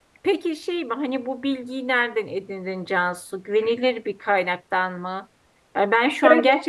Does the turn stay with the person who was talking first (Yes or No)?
Yes